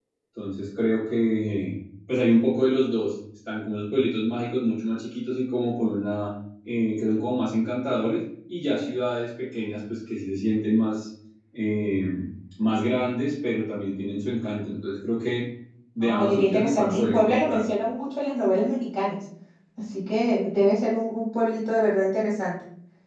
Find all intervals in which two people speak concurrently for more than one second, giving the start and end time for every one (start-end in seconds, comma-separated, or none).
16.0-17.6